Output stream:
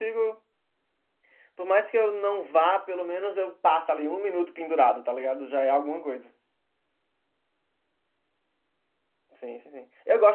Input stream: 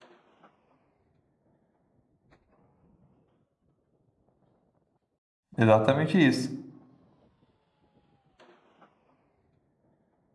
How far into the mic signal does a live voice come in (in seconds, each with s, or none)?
5.6 s